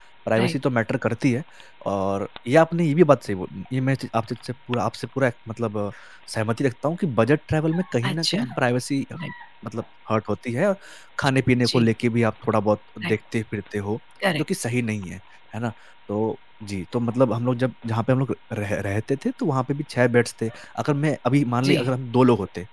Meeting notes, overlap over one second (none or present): none